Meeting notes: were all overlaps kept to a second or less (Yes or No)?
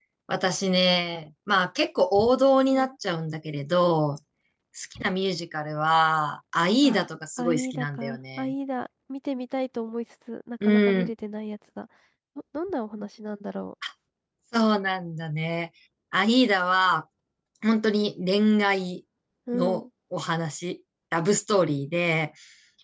No